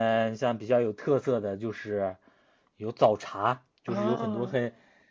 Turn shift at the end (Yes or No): No